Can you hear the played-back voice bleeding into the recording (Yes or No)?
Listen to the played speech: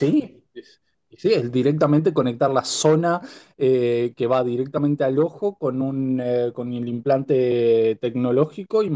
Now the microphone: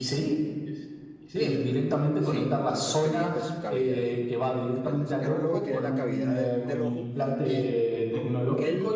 Yes